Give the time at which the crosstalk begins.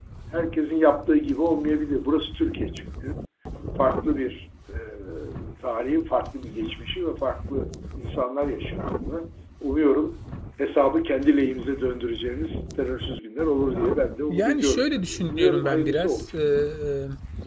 14.3 s

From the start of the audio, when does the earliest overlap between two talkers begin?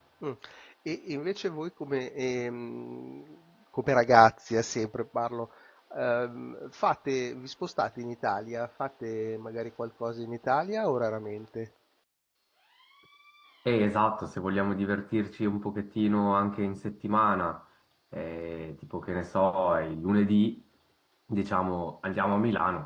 none

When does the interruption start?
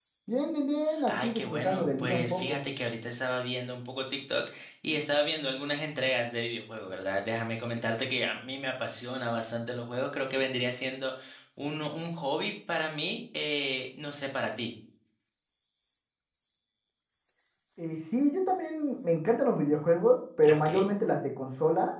1.0 s

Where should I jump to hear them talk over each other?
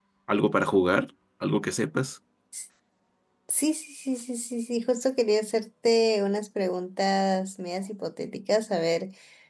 none

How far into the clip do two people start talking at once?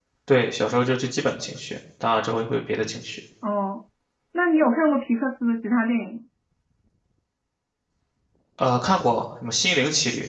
none

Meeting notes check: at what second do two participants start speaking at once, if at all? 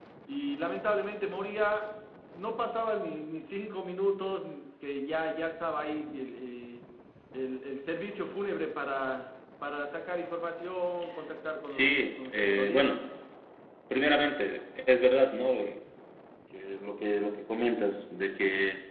11.7 s

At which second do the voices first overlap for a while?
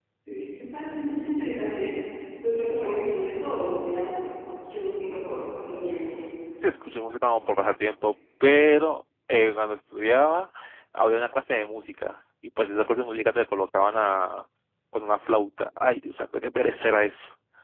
none

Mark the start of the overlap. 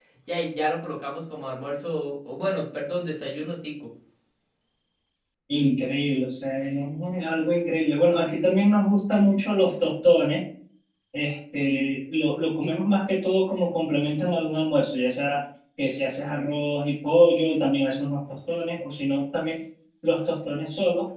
none

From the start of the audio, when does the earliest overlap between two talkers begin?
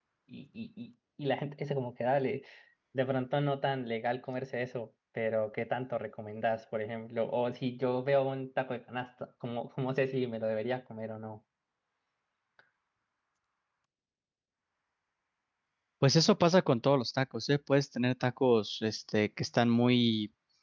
none

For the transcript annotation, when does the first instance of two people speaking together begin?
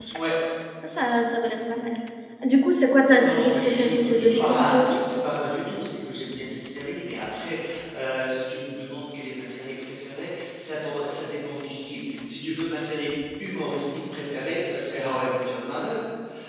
3.2 s

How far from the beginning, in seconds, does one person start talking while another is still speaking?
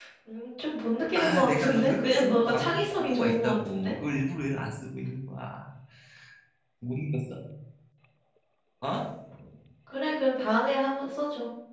1.2 s

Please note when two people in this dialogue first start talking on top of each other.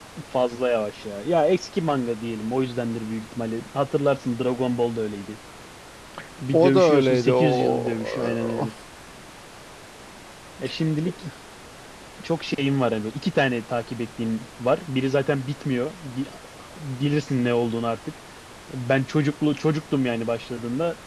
6.5 s

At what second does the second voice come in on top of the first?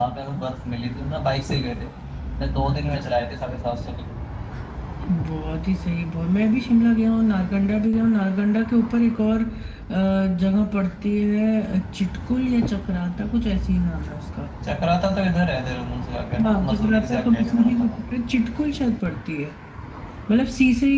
16.4 s

